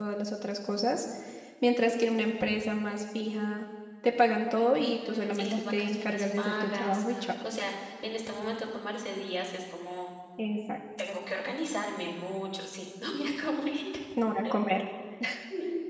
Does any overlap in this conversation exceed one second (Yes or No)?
Yes